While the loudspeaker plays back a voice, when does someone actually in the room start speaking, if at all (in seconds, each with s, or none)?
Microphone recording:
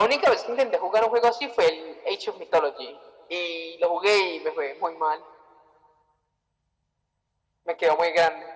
none